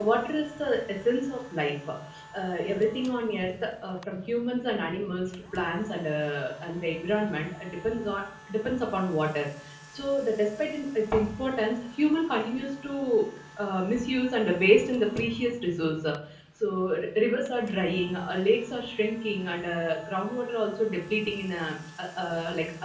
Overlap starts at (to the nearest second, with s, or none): none